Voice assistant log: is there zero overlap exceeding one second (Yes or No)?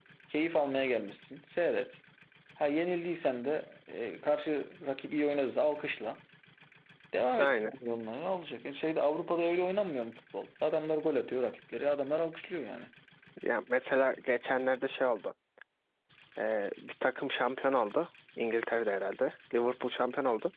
Yes